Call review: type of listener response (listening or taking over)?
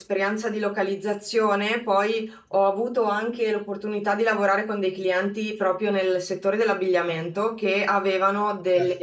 listening